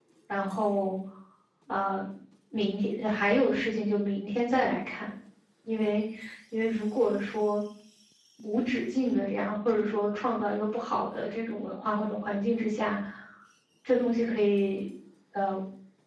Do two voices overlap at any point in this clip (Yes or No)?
No